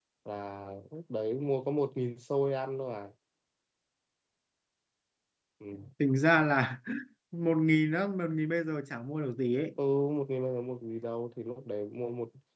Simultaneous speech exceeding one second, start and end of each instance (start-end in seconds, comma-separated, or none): none